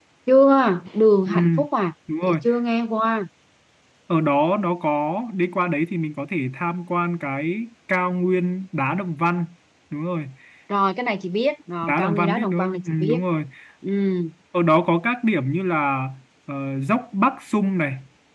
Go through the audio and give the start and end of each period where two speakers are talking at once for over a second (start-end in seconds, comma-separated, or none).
11.9-13.2